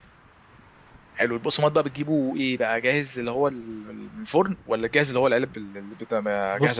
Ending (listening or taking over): taking over